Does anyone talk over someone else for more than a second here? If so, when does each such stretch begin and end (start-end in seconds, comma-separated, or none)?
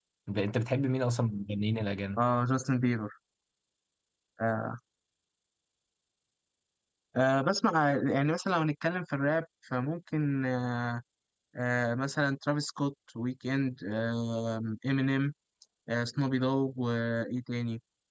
none